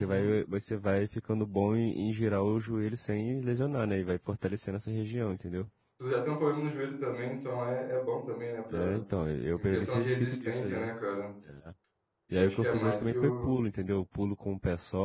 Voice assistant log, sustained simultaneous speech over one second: present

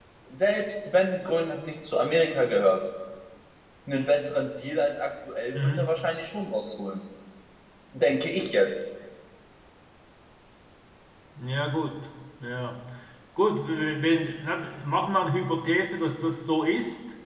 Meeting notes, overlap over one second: none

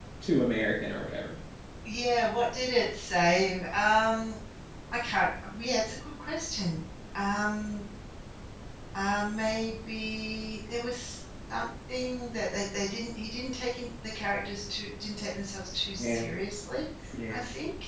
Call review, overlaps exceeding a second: none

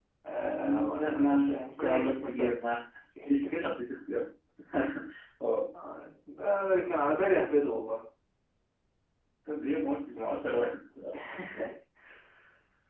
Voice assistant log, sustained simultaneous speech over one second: present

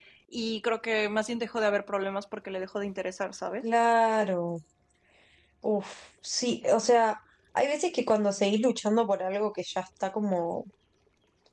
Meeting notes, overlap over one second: none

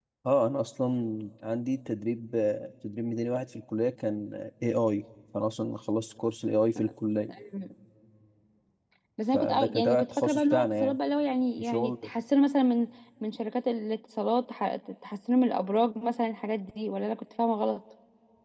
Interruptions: present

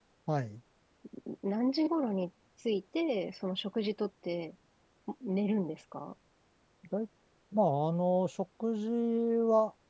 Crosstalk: none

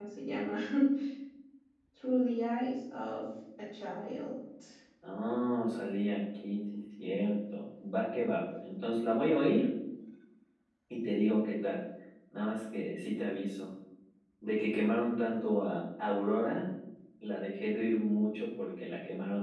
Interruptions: none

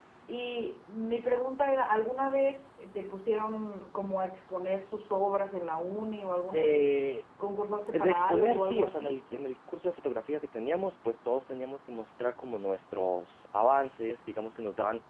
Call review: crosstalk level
present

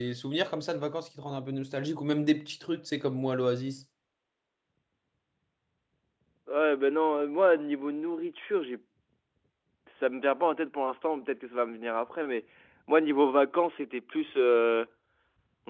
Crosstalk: none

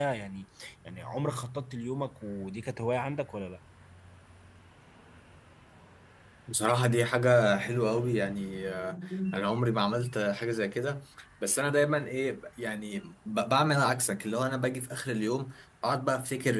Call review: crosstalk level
none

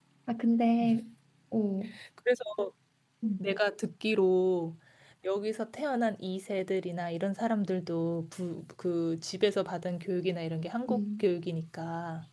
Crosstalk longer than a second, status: none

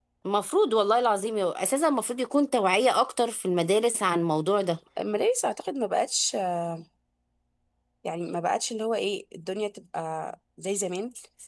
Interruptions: none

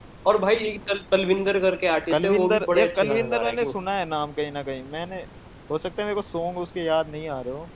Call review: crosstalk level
present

